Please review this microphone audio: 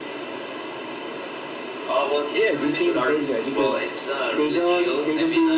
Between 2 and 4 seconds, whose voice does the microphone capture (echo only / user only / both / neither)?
echo only